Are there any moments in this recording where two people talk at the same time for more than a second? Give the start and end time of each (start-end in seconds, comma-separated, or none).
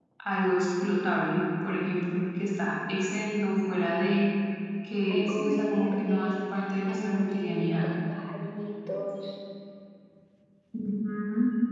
5.1-7.9